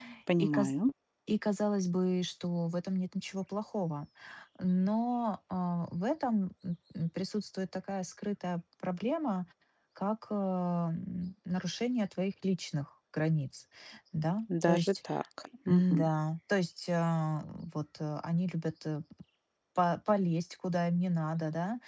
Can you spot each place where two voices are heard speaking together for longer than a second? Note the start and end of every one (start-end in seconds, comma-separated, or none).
none